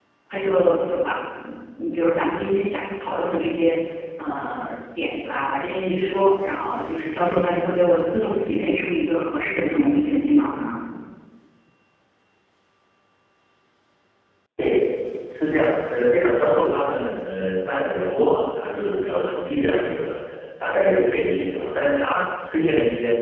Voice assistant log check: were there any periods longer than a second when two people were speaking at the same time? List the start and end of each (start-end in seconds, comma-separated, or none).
none